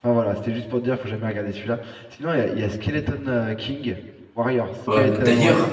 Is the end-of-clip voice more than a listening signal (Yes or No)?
Yes